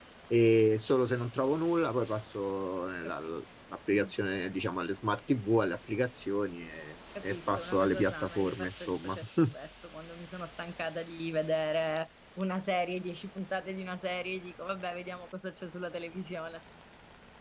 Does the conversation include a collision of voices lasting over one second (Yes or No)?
Yes